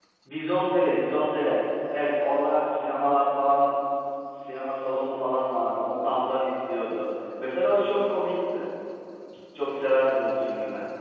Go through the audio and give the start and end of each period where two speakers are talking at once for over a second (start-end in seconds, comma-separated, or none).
none